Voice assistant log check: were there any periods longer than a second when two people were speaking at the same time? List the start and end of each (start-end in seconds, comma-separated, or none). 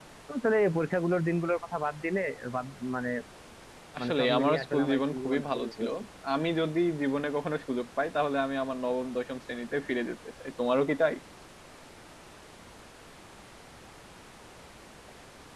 4.0-5.9